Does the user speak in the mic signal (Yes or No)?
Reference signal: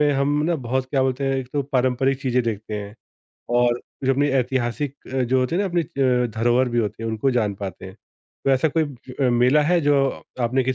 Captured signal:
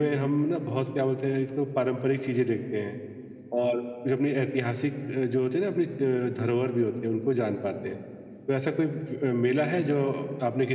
No